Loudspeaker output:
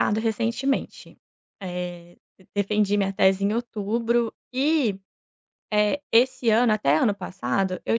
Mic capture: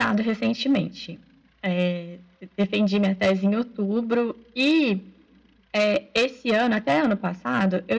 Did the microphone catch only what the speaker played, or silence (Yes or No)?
Yes